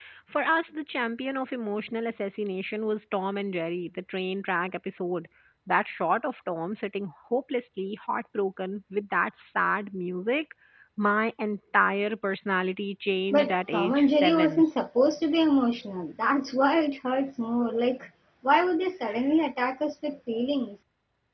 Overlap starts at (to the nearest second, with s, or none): 13 s